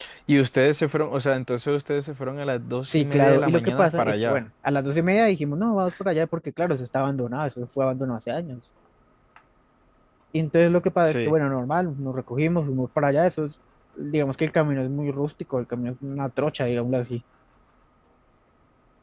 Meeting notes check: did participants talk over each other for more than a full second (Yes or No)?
Yes